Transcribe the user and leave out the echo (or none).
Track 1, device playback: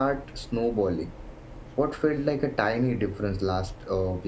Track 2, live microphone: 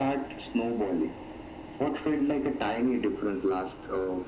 none